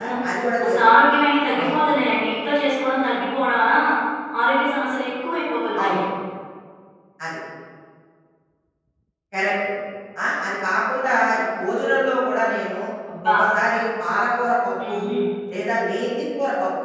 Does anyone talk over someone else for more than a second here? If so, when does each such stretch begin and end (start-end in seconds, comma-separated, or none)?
none